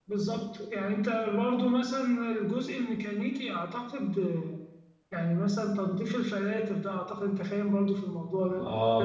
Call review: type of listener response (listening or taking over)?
taking over